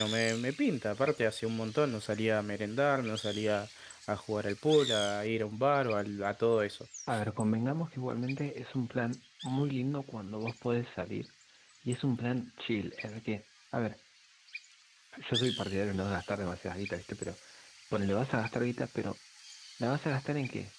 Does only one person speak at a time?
Yes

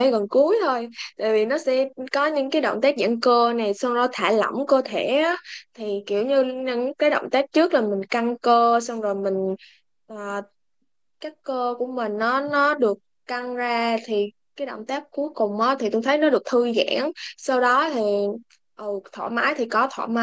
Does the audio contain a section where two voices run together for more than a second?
No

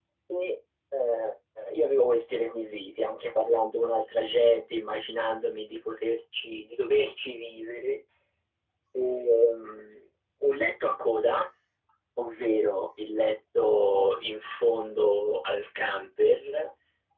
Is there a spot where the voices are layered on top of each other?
No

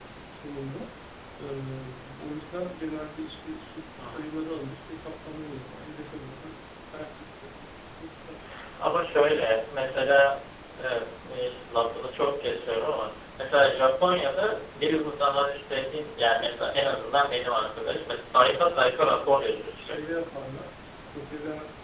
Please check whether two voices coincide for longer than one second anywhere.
No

